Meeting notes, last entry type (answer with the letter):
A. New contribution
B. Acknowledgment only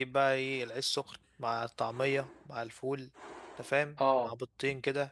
B